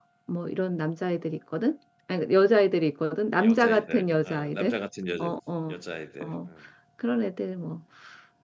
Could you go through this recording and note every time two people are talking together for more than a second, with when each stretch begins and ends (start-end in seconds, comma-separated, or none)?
3.3-4.8